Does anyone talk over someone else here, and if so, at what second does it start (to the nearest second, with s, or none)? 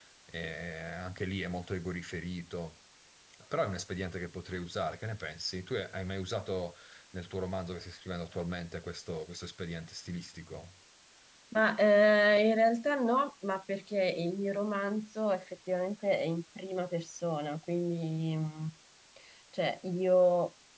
none